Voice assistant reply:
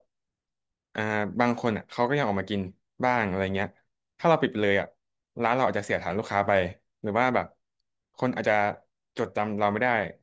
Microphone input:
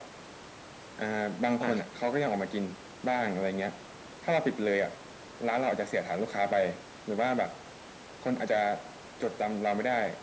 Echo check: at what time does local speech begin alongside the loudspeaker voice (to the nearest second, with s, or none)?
2 s